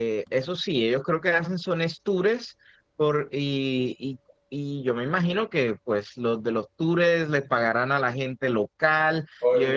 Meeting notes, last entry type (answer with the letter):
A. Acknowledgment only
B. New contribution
B